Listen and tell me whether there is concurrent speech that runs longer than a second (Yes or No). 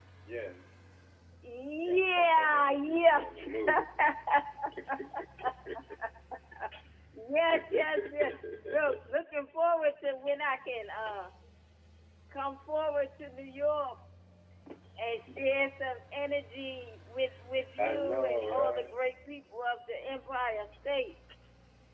Yes